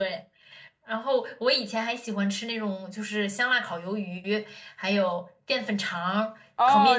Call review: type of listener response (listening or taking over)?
taking over